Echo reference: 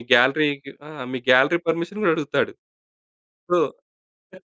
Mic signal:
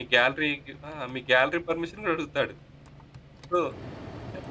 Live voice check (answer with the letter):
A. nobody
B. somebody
A